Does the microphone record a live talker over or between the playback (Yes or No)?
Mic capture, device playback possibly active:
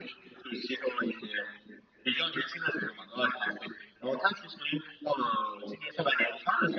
No